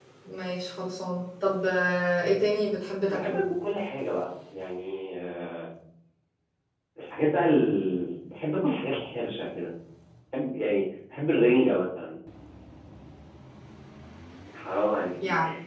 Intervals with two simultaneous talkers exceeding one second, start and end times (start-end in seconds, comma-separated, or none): none